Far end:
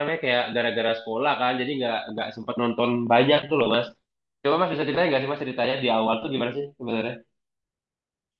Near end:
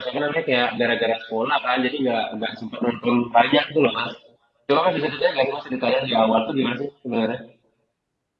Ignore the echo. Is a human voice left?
No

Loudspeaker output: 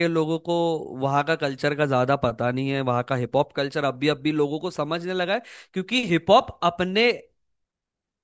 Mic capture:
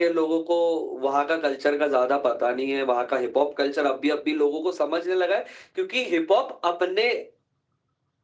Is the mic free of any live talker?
Yes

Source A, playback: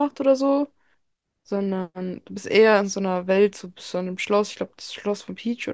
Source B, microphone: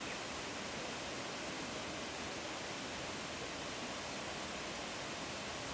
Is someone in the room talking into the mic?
No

